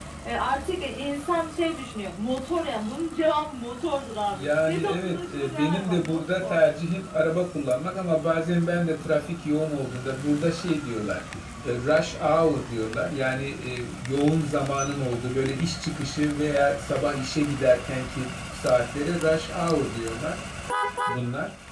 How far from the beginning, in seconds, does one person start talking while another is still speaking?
4.3 s

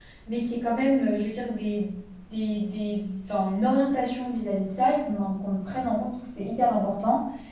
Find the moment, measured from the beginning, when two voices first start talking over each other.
none

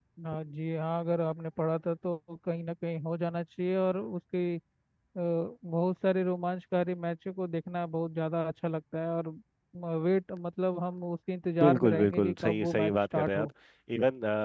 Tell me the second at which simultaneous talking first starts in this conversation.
11.6 s

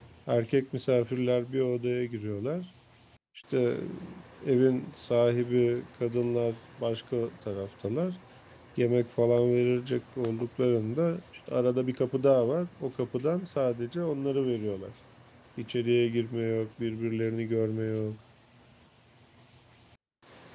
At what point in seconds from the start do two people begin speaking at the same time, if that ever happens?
none

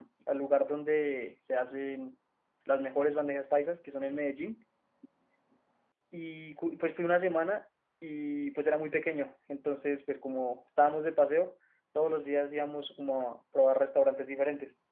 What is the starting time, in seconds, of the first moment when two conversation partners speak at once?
none

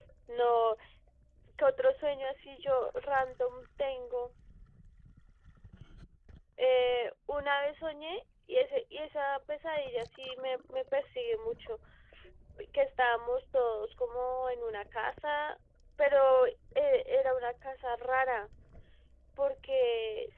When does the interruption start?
none

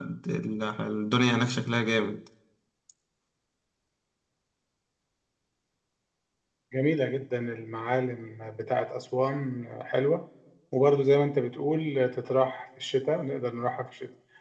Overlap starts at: none

